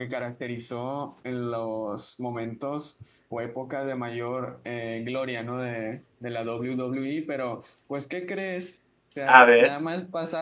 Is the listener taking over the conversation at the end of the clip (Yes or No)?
No